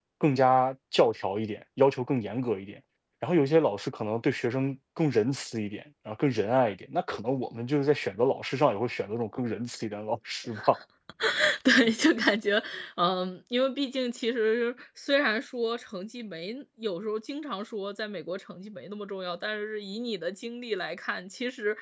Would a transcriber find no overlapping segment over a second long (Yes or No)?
Yes